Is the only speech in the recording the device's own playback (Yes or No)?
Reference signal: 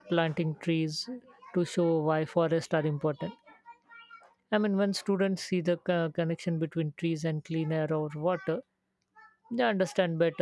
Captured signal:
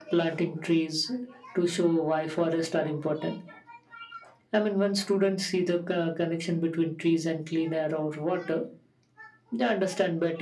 Yes